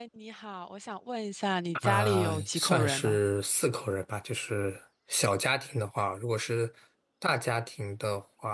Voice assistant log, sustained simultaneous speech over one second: present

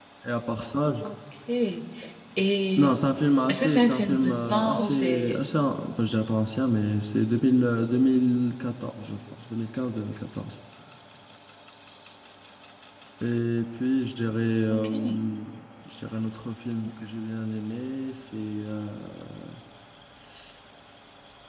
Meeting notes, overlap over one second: present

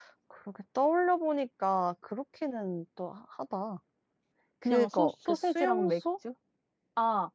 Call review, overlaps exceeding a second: present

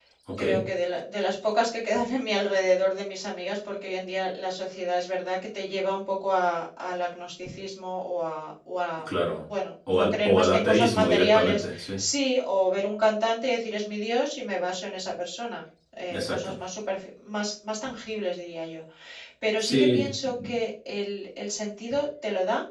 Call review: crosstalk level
present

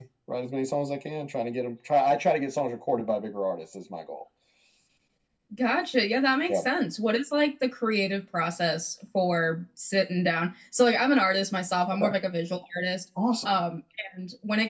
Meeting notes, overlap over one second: none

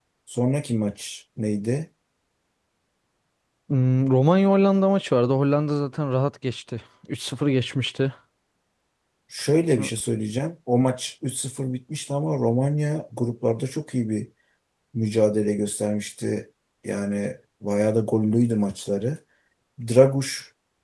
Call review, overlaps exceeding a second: none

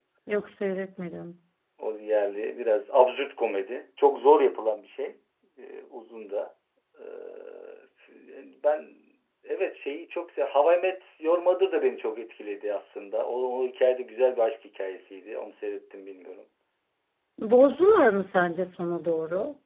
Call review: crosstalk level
none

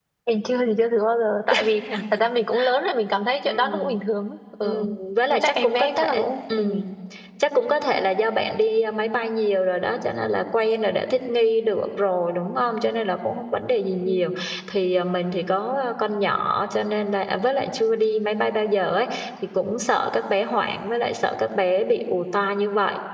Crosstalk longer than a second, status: present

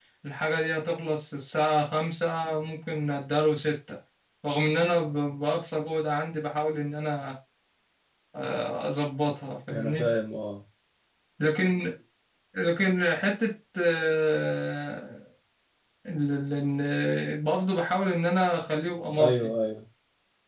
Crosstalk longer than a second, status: none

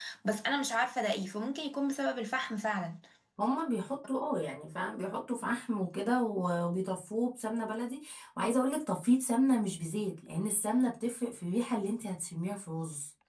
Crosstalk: none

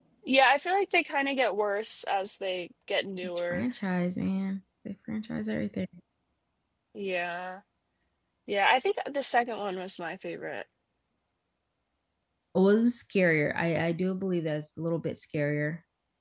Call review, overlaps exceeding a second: none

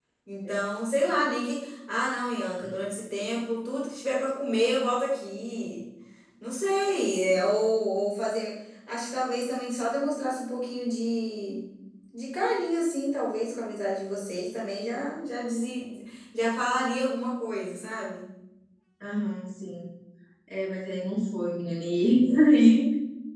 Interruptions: none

